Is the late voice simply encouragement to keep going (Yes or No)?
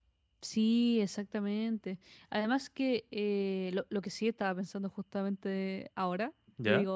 Yes